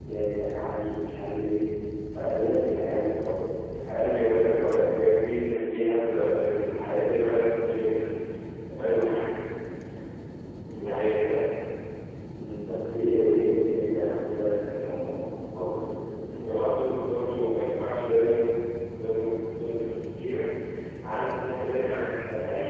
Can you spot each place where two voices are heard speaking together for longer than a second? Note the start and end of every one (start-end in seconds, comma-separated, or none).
3.9-5.4